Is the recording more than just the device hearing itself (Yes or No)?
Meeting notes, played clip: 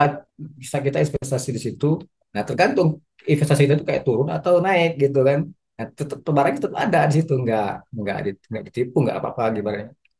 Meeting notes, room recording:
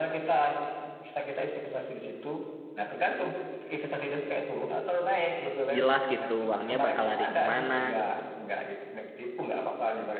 Yes